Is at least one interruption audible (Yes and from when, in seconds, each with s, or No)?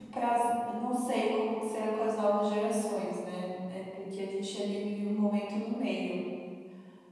No